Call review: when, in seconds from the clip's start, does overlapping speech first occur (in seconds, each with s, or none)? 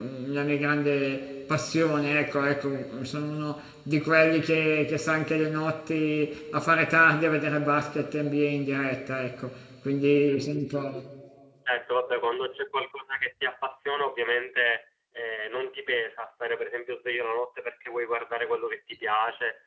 none